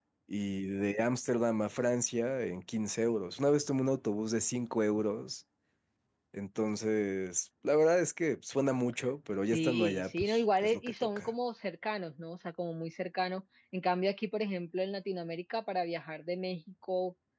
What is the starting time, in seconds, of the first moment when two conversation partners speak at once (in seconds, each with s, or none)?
9.5 s